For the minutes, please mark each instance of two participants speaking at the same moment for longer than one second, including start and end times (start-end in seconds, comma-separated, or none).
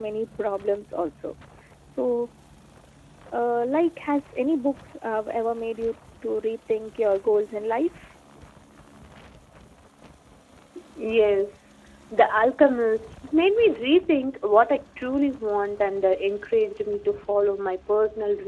none